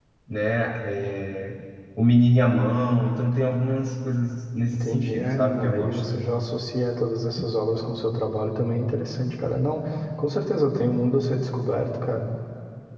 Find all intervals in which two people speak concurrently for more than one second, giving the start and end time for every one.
4.7-6.0

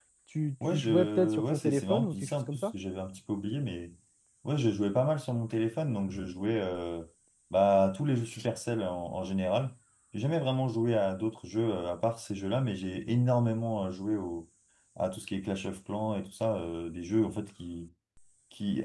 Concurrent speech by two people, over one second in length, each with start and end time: 0.7-2.7

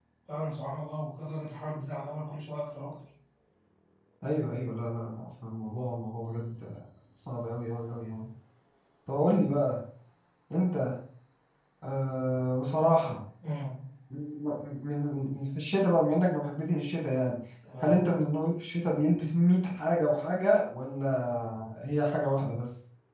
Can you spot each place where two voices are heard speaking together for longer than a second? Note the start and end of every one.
none

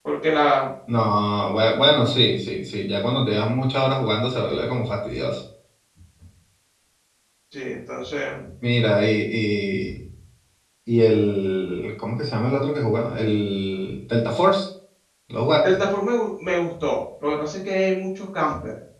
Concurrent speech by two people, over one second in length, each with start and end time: none

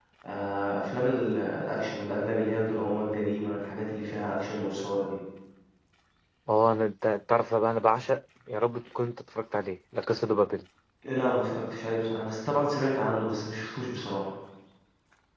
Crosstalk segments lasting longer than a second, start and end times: none

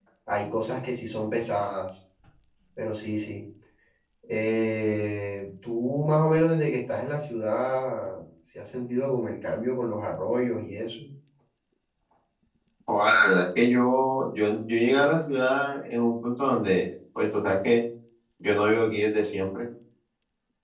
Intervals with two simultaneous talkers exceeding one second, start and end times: none

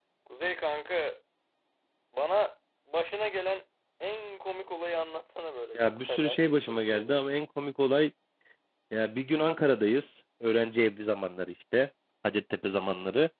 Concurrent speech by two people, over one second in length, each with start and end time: 5.8-7.2

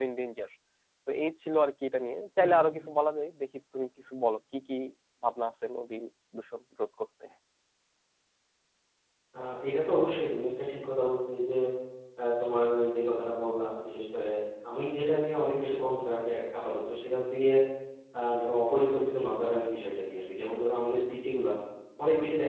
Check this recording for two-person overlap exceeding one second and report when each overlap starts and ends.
none

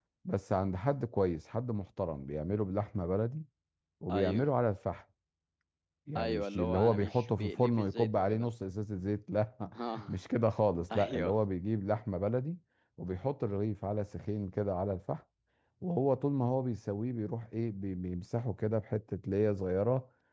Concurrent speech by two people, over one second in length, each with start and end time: 6.2-8.5

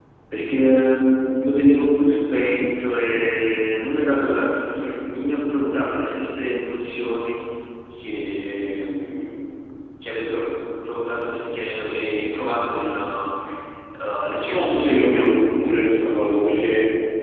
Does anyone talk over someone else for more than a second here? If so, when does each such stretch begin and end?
14.5-15.9

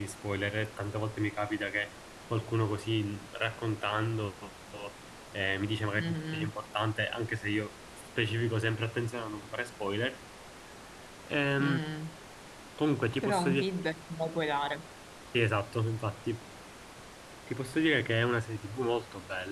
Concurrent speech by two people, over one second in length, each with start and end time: none

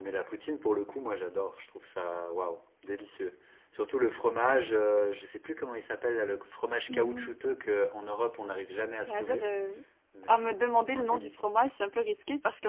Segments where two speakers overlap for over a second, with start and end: 10.3-11.5

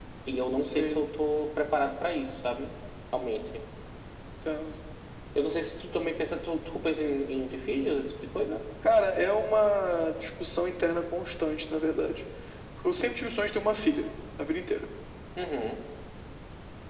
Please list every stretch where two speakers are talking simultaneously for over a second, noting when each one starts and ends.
none

